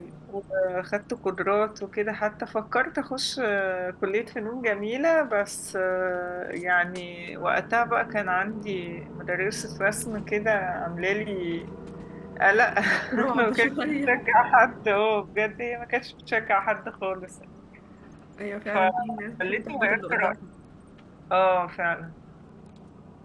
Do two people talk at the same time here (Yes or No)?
Yes